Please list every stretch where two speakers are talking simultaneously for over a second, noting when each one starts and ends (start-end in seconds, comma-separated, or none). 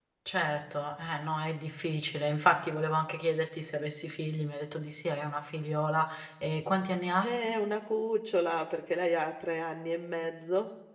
none